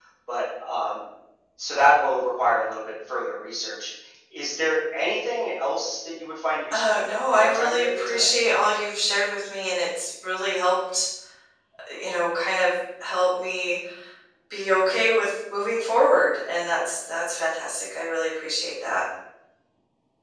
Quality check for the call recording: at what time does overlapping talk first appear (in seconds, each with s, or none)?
6.7 s